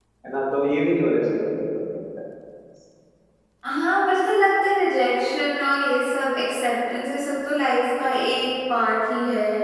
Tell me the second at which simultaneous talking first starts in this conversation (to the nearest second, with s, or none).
none